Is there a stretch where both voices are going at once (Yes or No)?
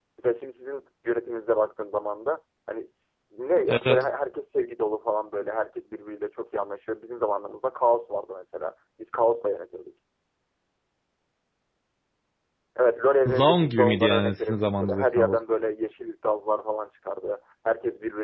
Yes